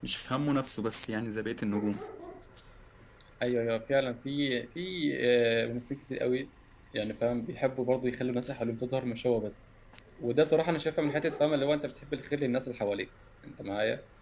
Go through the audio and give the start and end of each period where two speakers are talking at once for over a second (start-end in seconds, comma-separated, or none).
none